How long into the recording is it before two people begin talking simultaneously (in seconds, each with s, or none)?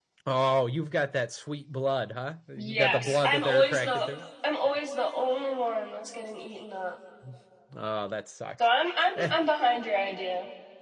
2.6 s